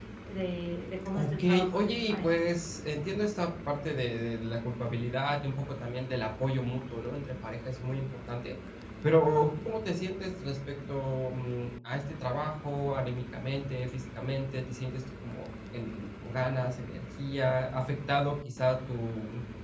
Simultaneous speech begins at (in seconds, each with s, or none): 1.1 s